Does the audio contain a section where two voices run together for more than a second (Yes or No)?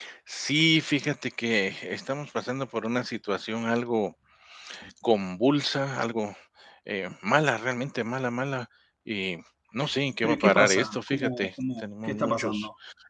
Yes